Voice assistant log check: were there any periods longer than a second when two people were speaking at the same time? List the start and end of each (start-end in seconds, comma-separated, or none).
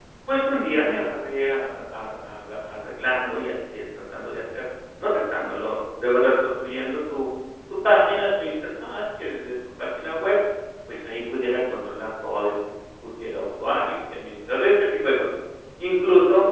none